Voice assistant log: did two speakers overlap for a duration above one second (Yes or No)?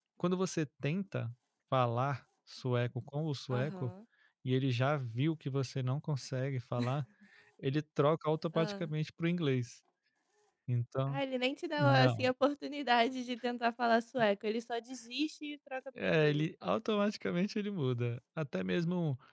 No